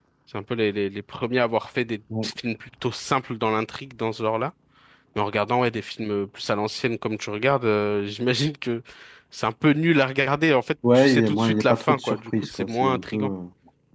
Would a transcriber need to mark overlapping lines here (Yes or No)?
Yes